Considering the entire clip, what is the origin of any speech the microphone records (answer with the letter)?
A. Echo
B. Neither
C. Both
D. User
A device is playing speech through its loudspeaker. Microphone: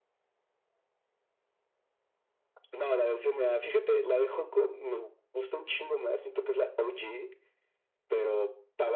A